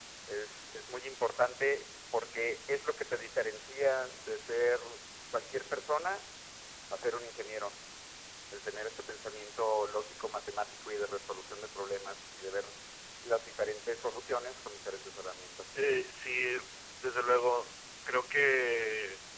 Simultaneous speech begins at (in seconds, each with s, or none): none